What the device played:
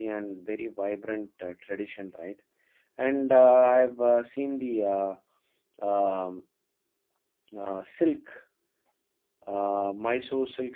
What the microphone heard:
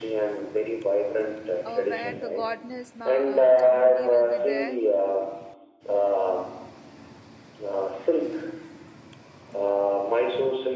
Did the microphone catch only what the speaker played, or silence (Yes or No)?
No